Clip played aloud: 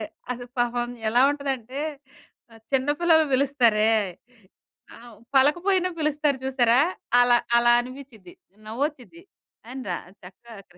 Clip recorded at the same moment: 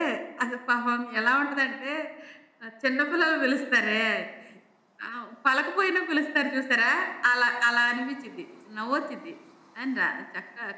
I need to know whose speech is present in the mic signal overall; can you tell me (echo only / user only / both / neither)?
echo only